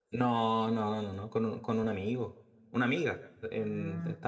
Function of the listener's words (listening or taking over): listening